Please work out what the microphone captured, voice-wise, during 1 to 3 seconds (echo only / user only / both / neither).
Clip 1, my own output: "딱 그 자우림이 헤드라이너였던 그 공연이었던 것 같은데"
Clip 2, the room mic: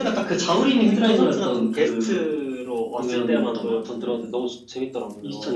both